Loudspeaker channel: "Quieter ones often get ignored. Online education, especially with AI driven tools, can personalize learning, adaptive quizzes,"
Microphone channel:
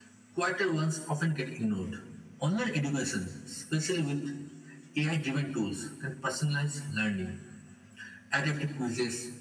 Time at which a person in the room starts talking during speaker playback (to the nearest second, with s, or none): none